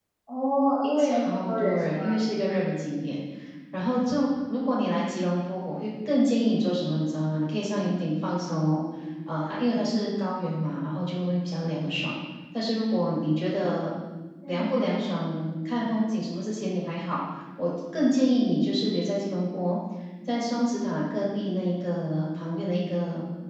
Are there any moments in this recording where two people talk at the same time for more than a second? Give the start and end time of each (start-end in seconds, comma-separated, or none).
1.0-2.2